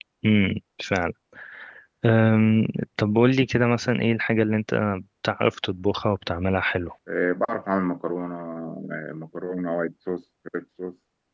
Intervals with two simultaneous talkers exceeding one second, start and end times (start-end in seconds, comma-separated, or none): none